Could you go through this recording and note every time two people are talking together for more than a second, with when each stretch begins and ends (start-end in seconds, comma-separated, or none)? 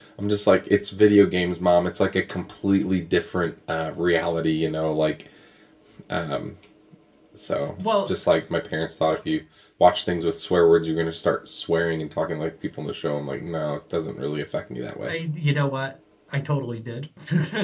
none